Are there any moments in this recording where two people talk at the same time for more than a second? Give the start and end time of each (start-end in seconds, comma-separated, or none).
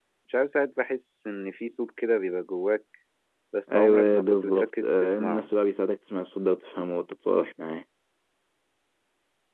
3.7-5.5